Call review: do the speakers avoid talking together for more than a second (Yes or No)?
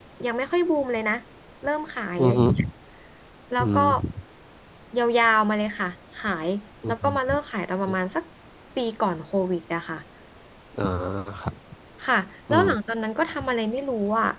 Yes